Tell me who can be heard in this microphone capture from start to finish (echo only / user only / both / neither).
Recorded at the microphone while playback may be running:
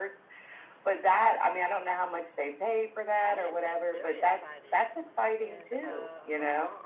both